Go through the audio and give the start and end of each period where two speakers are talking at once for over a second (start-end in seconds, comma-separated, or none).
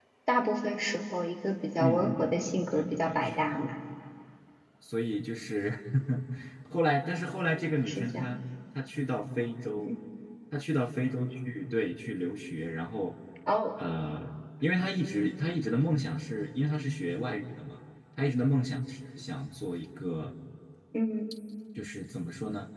1.8-3.6